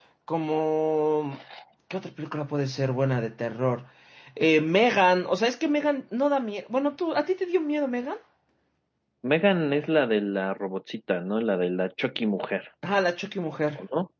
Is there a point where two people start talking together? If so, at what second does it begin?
none

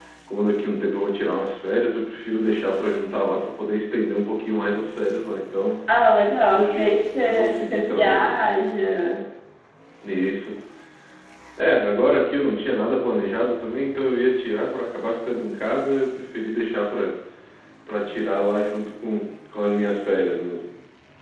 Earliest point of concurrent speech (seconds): 6.5 s

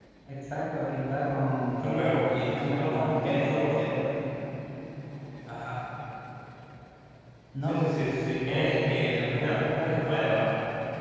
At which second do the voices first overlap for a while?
1.8 s

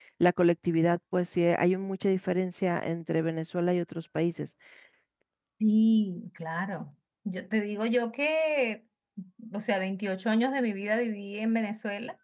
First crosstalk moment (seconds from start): none

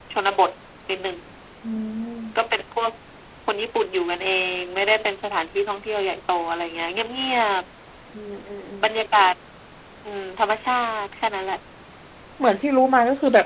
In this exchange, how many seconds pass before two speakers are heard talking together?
none

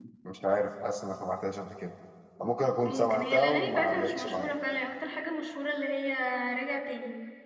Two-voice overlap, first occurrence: 2.8 s

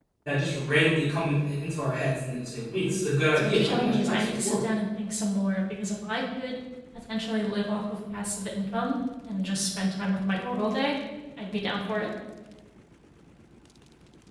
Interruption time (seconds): 3.3 s

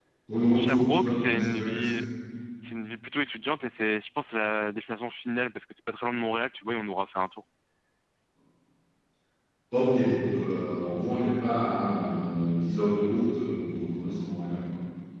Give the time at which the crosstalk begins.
0.5 s

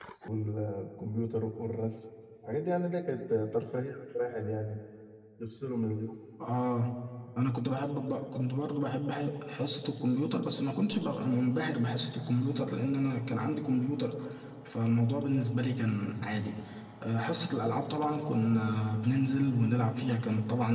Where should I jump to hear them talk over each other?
none

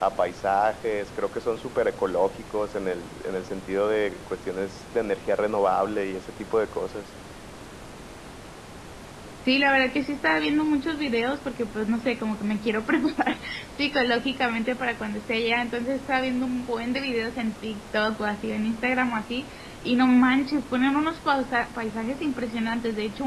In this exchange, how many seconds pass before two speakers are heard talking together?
none

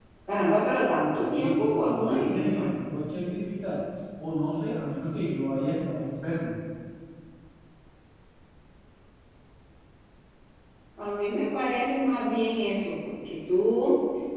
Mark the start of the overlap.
0.9 s

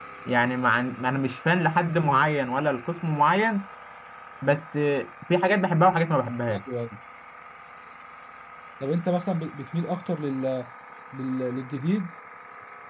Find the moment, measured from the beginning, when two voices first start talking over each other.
none

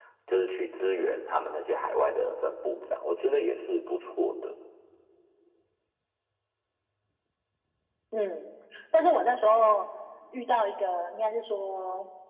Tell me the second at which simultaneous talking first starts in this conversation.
none

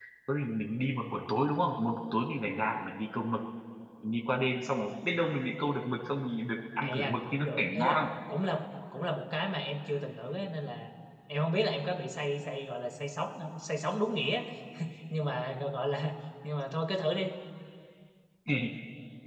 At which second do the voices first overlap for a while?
6.8 s

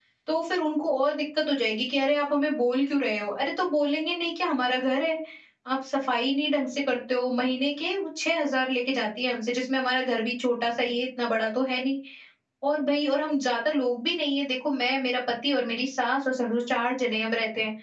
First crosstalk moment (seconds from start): none

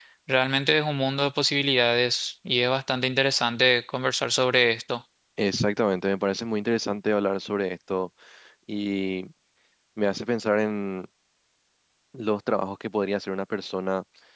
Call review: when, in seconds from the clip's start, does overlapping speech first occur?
none

